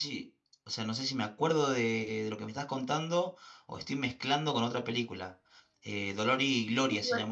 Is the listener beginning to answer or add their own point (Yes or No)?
No